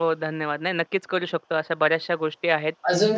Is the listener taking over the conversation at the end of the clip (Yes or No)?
Yes